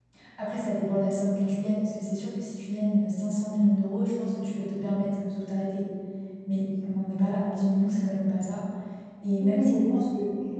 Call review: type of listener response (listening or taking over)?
taking over